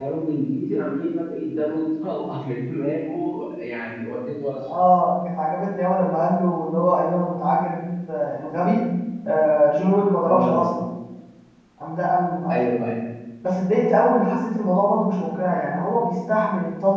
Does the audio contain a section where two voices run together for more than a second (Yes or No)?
No